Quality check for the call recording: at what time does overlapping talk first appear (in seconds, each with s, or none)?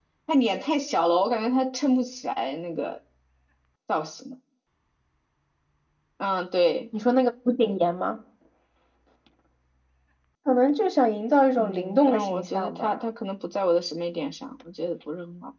11.6 s